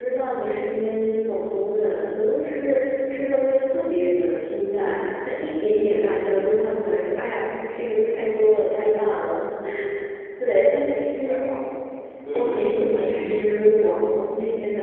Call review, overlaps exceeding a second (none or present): present